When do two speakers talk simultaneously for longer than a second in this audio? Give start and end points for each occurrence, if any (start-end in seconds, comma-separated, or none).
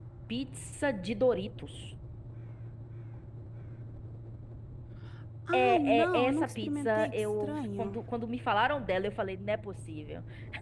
5.5-8.0